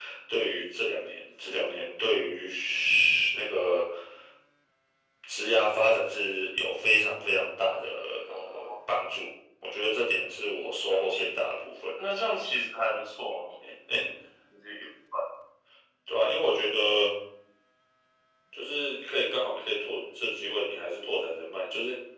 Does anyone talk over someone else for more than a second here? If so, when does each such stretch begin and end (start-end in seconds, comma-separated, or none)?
none